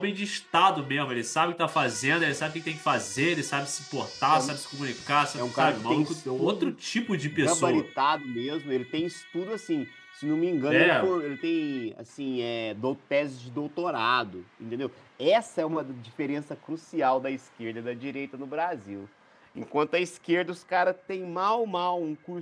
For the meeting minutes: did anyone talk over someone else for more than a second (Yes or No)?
Yes